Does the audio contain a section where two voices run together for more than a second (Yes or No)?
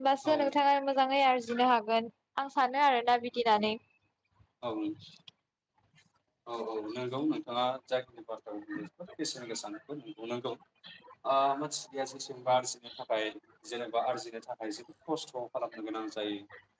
No